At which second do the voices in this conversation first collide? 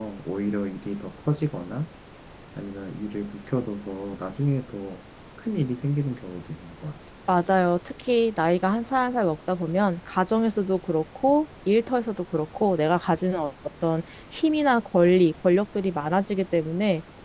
none

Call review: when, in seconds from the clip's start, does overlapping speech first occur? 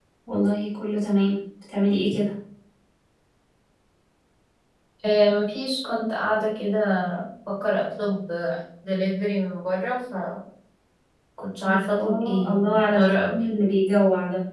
11.7 s

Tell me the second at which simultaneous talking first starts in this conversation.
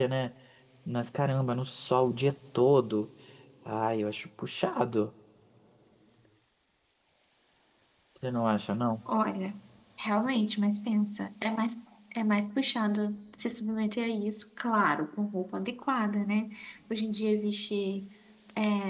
none

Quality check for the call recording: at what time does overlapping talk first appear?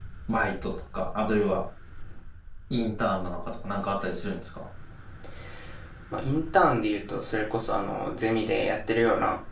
none

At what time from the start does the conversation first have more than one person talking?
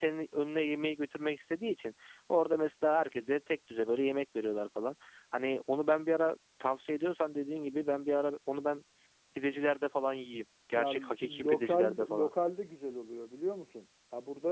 10.8 s

